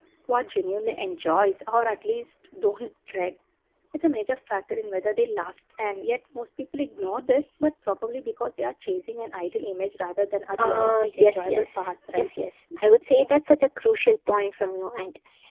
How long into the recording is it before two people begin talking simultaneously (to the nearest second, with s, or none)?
11 s